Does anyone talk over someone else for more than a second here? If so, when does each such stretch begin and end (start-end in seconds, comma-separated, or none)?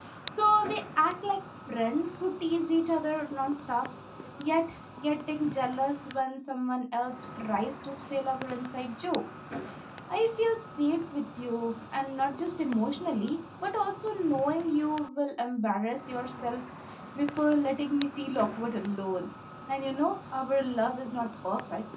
none